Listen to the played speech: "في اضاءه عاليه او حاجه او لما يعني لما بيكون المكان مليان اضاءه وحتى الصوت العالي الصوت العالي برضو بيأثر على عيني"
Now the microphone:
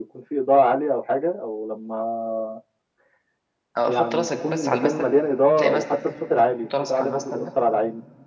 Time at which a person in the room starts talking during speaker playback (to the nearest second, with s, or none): 4 s